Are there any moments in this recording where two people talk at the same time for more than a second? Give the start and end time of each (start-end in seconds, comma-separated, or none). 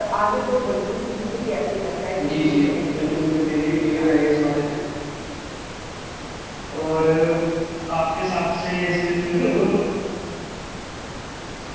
2.2-4.3